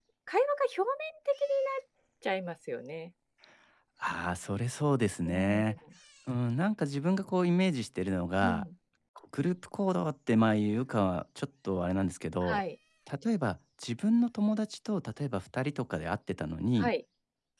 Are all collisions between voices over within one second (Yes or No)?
Yes